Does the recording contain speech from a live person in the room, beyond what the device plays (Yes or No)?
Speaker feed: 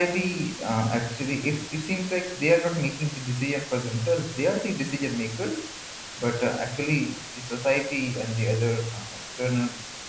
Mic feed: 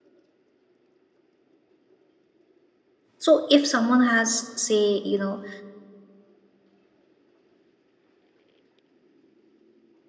Yes